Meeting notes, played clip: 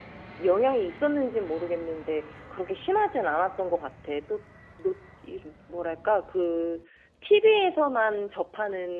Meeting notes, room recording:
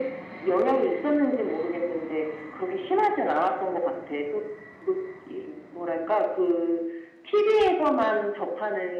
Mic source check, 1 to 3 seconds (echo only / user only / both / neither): echo only